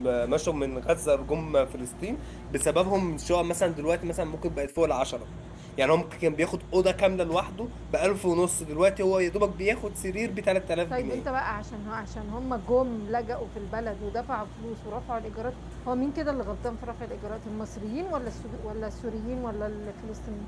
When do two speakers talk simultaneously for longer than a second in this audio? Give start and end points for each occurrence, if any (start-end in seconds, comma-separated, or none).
none